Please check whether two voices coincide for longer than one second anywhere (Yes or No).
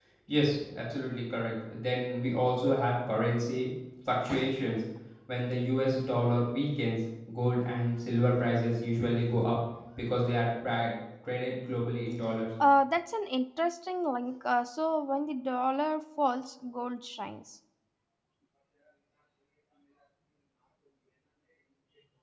No